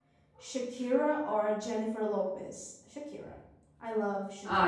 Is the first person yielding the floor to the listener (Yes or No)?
Yes